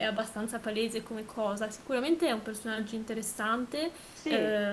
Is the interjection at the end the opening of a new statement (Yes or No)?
No